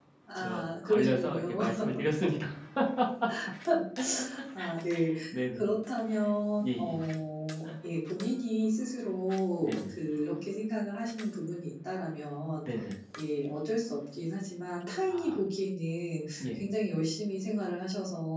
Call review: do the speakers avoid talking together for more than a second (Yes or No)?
No